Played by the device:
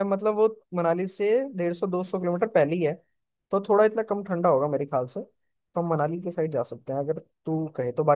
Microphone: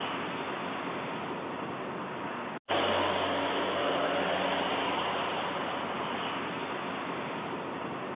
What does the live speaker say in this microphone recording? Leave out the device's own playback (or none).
none